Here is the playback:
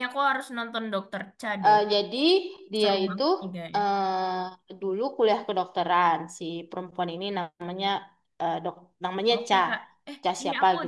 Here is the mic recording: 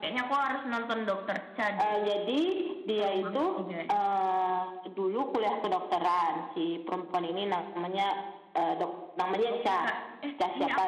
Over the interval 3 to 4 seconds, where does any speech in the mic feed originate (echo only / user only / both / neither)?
echo only